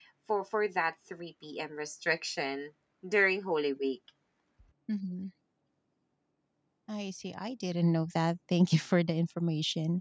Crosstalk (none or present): none